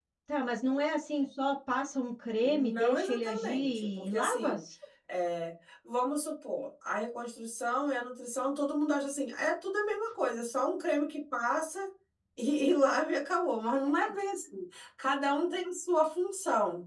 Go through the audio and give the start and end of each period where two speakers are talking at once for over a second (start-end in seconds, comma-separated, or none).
2.4-4.6